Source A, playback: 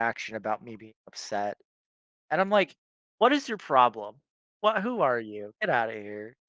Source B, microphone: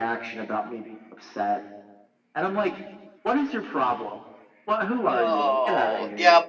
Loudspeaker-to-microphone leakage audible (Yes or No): Yes